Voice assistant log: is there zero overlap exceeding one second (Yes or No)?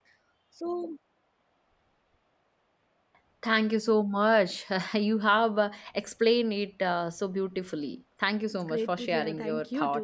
No